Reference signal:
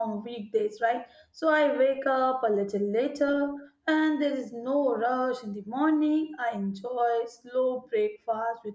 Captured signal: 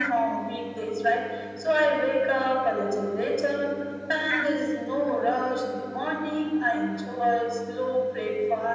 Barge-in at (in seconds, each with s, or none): none